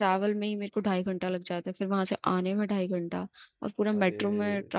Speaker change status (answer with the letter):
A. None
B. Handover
A